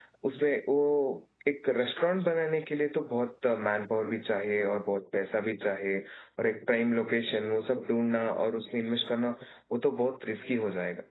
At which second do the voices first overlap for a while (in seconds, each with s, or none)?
none